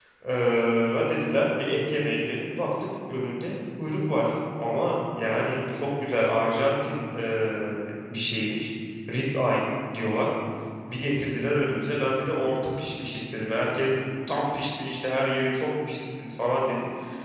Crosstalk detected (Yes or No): No